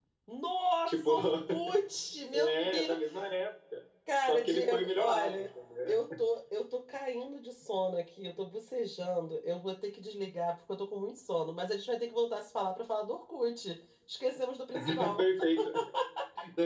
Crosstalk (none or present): present